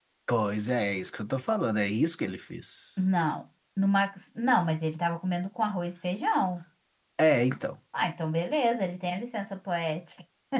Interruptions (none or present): none